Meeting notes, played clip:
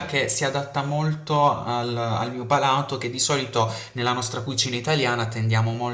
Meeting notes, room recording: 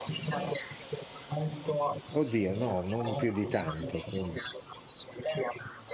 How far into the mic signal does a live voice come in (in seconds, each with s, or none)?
2.1 s